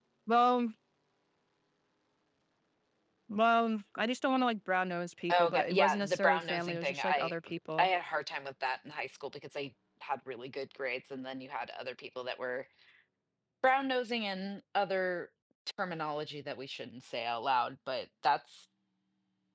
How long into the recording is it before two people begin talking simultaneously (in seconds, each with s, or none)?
5.3 s